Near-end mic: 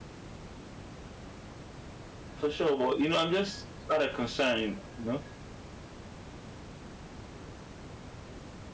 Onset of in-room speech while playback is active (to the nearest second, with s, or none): 2 s